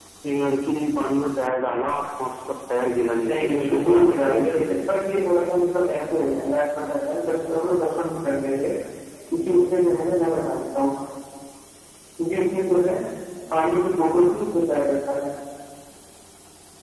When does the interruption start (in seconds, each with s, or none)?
3.3 s